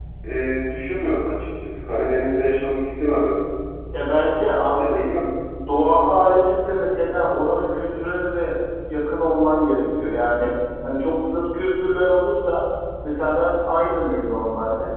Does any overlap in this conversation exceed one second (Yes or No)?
No